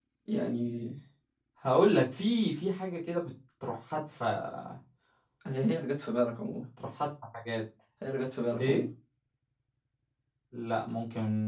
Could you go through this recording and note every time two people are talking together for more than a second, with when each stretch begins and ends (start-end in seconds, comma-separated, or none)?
none